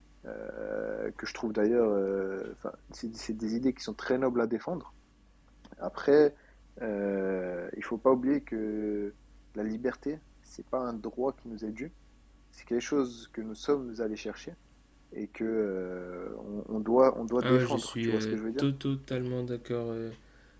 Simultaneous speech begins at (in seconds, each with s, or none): 17.3 s